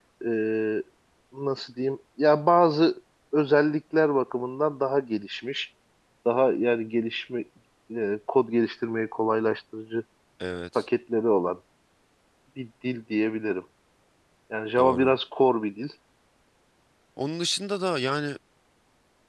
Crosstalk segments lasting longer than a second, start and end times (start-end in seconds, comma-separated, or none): none